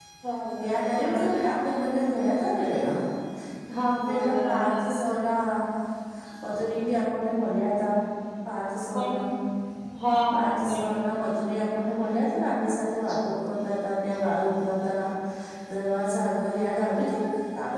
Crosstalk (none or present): present